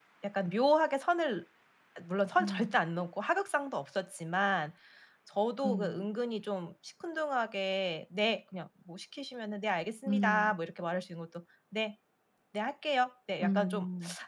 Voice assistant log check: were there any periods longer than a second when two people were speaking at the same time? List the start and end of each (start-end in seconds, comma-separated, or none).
none